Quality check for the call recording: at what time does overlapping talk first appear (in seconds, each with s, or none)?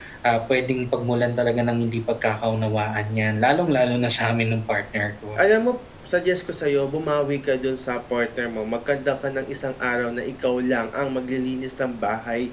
none